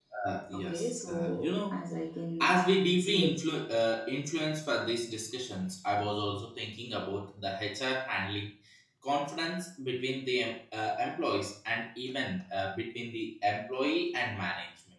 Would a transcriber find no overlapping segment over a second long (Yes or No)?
No